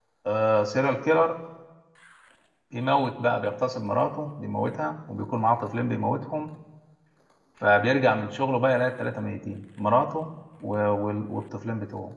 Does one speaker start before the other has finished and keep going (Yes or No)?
No